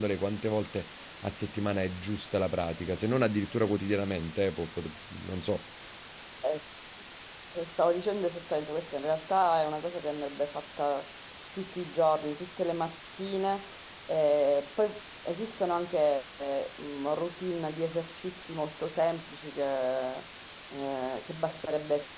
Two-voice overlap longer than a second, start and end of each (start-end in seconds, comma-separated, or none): none